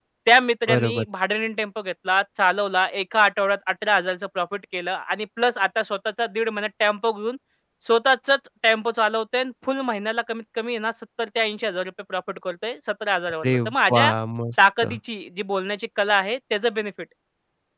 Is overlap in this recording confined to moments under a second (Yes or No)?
Yes